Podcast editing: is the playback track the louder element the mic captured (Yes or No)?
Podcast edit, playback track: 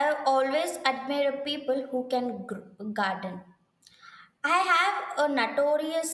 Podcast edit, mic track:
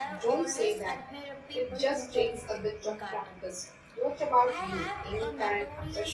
No